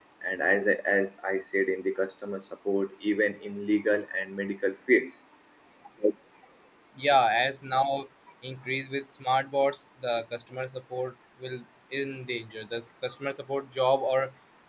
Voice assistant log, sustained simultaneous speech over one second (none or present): none